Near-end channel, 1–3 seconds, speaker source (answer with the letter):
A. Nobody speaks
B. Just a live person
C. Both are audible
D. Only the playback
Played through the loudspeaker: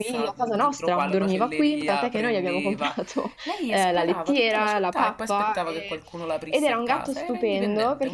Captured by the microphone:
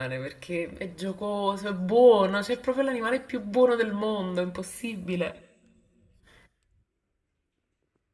B